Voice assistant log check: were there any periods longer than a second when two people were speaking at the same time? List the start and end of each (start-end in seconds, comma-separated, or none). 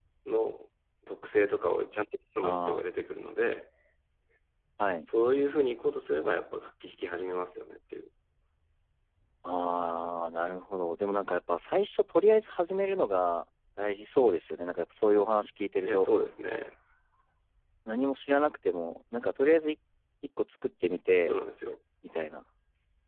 none